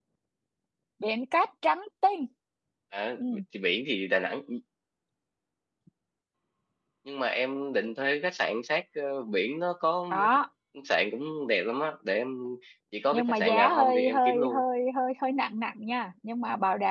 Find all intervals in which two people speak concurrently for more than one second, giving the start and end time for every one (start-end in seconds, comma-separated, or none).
13.1-14.6